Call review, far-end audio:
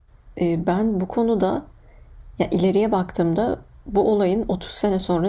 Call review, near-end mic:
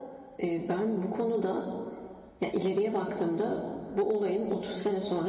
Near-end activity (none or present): none